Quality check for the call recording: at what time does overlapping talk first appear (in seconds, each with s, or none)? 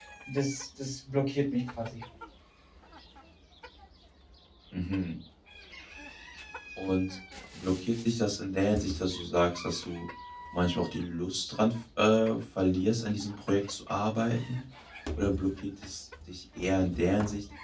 none